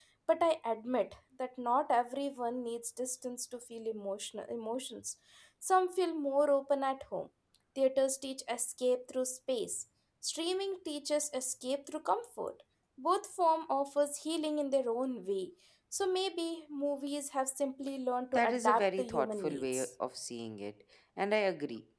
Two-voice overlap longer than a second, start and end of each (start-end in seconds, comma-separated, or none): 18.3-19.9